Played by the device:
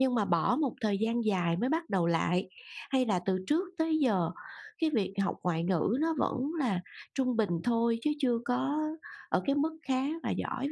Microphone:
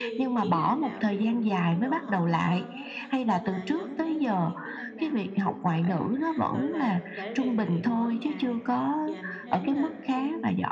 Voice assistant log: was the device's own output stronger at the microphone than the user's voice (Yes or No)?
Yes